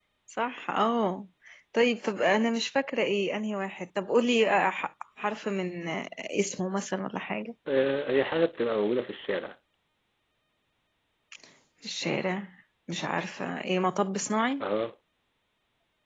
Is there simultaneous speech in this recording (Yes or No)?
No